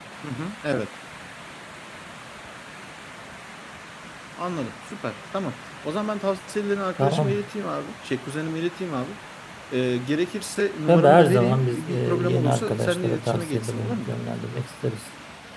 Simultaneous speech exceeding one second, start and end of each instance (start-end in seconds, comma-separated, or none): 10.9-14.1